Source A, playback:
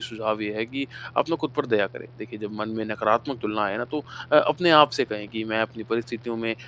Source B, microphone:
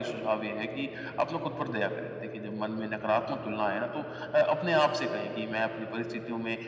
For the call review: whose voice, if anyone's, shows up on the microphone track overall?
echo only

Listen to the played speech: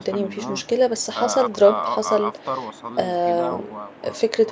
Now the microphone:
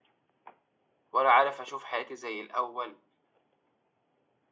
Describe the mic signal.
user only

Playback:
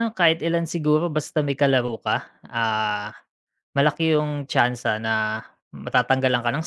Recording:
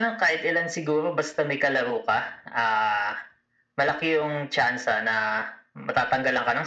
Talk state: echo only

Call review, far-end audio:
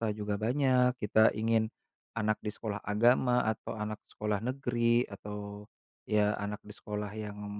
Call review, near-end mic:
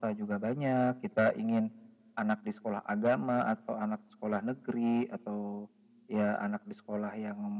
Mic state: echo only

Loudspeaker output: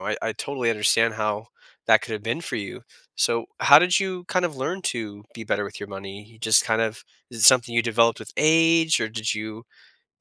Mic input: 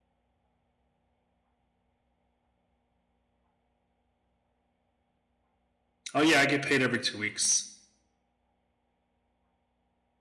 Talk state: user only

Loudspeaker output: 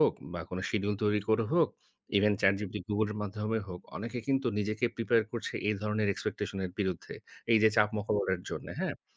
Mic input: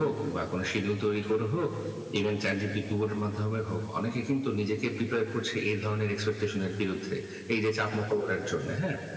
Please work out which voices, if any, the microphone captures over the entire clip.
echo only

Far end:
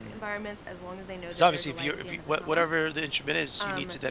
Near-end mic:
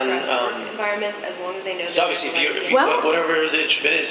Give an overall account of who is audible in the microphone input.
both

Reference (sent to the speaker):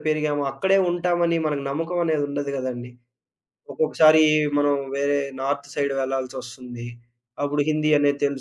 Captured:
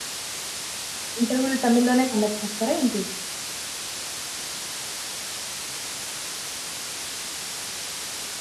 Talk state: user only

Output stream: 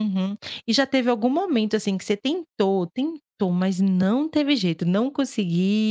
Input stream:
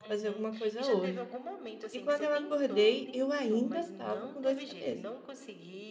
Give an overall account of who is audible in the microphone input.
both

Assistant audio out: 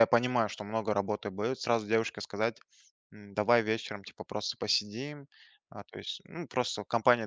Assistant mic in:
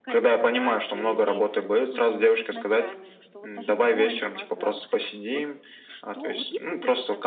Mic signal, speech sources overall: both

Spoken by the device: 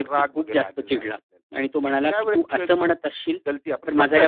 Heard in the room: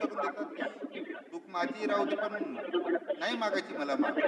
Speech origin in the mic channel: both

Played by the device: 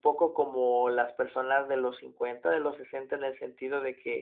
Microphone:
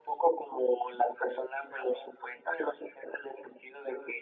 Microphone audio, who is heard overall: echo only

